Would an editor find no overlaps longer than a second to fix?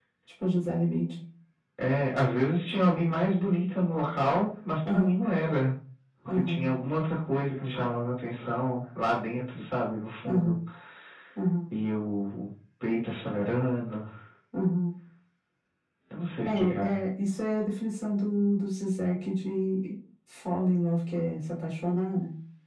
Yes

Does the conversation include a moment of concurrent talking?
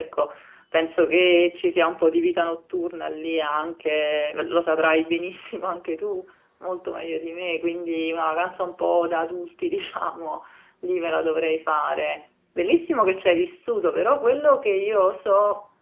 No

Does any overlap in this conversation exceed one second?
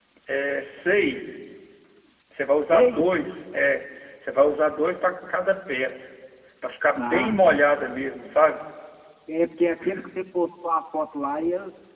No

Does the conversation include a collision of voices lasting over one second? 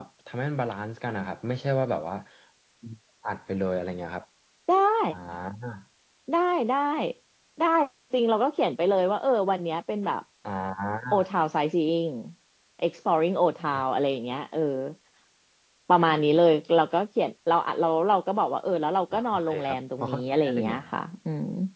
Yes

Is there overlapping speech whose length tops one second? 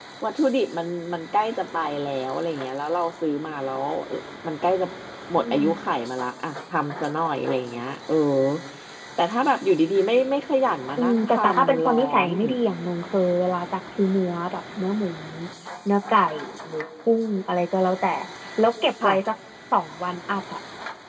Yes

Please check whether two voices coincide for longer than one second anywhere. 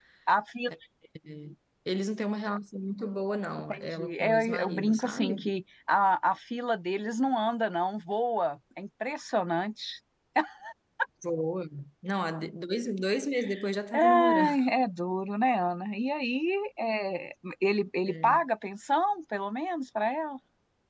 Yes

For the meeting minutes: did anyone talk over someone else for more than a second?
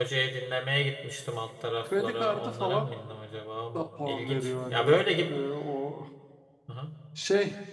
Yes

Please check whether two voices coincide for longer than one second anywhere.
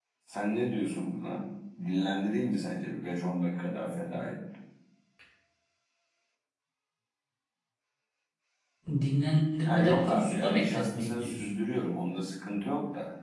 Yes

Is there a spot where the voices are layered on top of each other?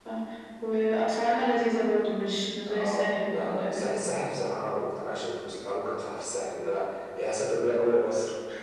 Yes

